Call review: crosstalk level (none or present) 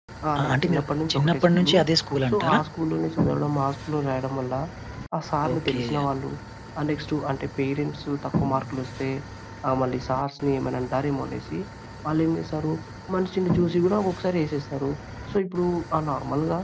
present